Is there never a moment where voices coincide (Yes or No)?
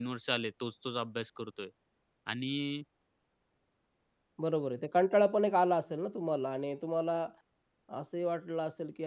Yes